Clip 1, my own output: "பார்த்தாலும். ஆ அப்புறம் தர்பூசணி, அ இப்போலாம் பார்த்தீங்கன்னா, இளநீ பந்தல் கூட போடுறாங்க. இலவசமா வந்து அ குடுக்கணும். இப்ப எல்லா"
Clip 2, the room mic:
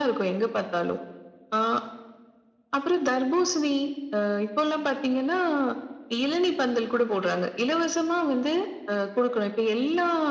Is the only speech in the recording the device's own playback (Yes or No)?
Yes